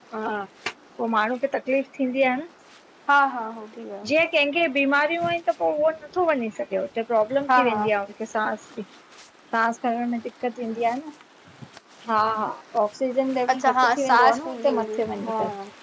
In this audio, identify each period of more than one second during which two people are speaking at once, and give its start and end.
13.5-15.3

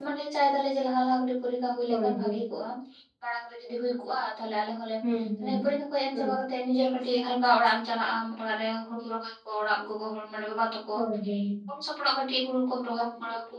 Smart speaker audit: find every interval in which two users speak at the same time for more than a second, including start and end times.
none

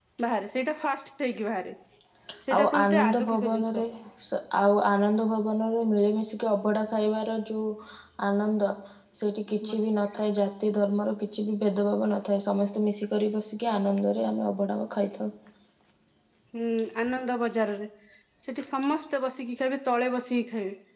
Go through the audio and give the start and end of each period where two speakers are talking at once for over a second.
2.5-3.8

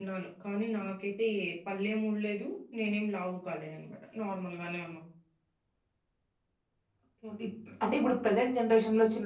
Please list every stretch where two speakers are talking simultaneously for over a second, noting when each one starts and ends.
none

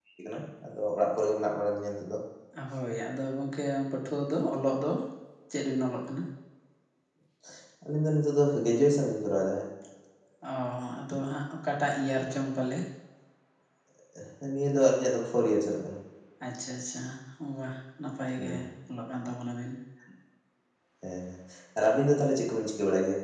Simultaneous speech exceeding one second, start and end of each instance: none

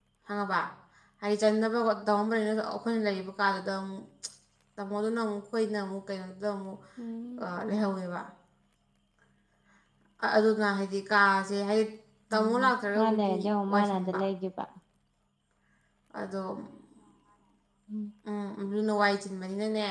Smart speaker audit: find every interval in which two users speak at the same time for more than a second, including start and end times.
12.3-14.2

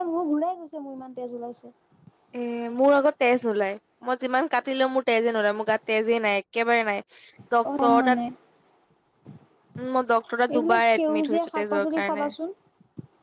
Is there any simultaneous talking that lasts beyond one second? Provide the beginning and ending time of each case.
10.5-12.2

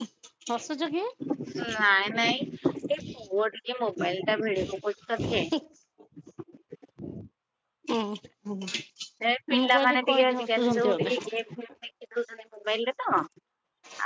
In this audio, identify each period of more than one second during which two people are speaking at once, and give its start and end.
9.6-11.1

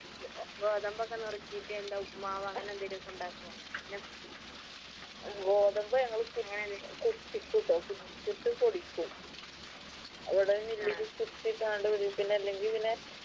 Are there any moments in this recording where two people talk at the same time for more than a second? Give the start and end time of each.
none

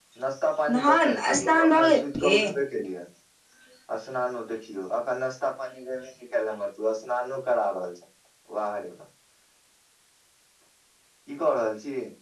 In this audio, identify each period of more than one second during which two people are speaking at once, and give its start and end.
0.7-2.4

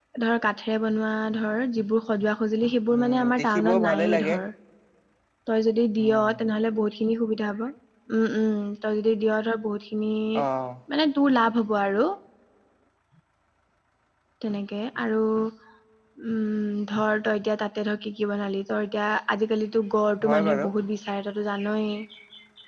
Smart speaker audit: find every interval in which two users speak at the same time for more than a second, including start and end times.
2.9-4.3

